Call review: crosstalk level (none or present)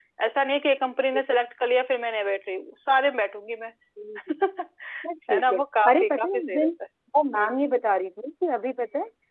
present